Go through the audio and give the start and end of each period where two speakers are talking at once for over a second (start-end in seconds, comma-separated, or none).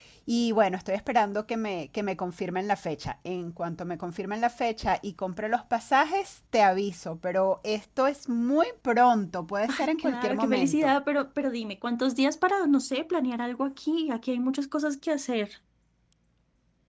9.7-10.9